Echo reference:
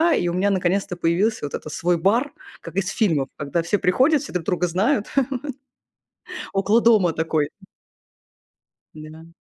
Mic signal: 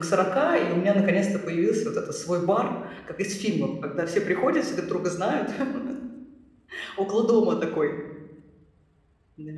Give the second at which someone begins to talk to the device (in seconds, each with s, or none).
none